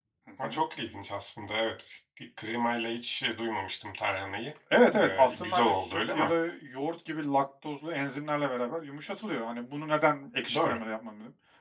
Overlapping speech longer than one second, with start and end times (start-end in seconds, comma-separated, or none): 5.0-6.3